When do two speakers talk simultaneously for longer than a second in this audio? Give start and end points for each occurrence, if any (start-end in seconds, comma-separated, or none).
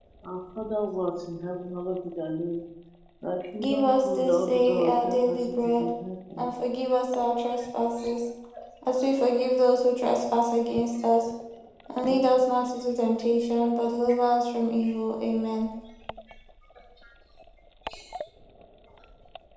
3.6-5.9